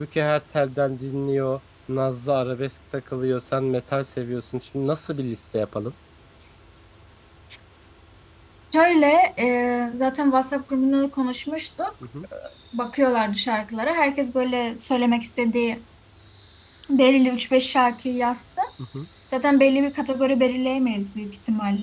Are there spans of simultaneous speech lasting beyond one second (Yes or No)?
No